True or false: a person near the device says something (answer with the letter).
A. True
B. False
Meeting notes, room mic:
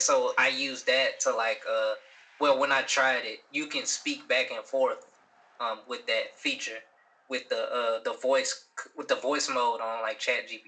B